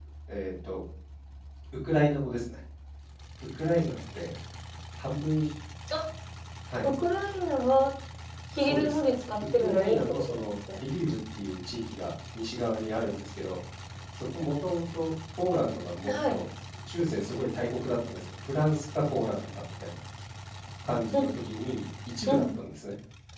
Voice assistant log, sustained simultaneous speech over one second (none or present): present